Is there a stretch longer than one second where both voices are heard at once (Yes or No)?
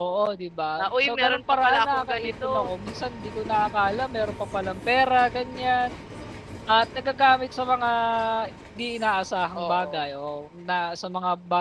Yes